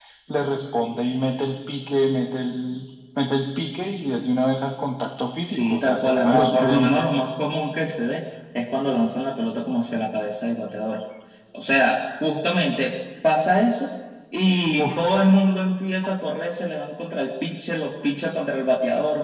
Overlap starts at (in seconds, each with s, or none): 5.4 s